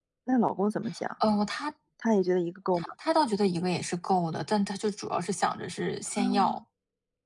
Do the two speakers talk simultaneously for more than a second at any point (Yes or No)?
No